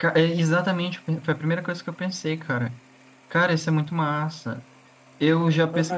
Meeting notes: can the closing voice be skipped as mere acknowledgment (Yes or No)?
No